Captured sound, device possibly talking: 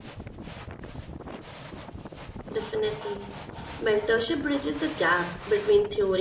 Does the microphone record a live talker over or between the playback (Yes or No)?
Yes